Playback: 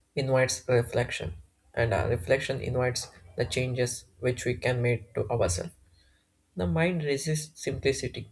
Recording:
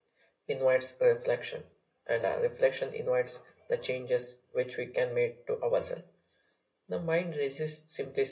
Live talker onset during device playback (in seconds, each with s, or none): none